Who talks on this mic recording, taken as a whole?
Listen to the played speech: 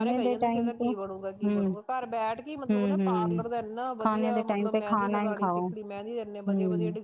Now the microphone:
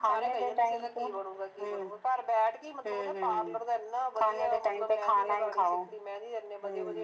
echo only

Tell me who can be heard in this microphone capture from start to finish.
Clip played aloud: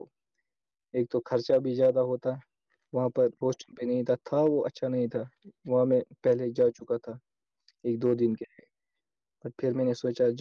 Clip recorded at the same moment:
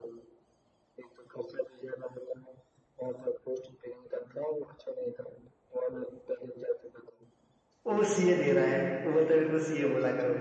both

